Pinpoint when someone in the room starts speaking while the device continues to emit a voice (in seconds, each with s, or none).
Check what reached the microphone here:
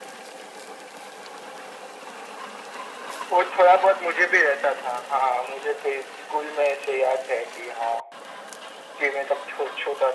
none